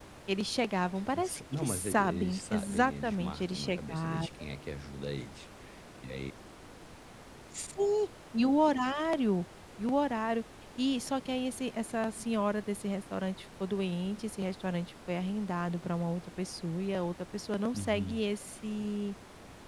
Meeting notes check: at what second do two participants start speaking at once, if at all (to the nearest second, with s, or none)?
1 s